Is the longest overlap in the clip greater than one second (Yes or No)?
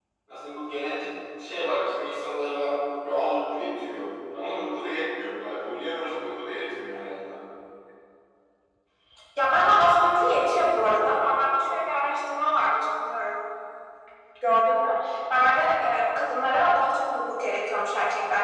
No